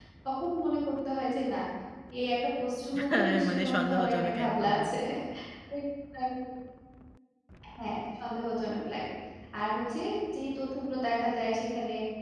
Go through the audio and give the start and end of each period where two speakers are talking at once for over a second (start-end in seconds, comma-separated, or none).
3.1-4.8